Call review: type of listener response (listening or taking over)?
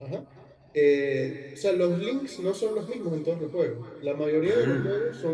listening